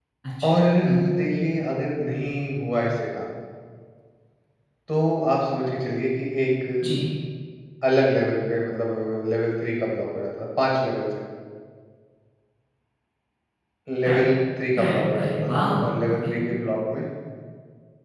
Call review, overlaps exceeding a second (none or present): present